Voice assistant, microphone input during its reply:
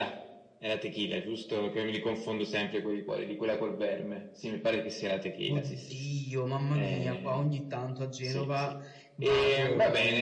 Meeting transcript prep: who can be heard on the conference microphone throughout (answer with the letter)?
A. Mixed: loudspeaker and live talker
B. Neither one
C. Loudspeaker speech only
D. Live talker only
C